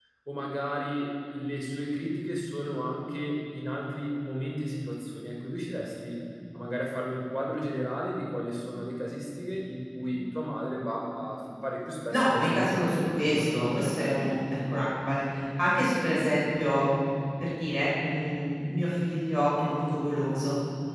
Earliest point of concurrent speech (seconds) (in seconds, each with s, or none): 12.1 s